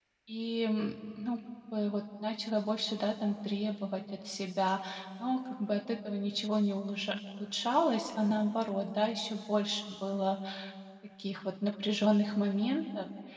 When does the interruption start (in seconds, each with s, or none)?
none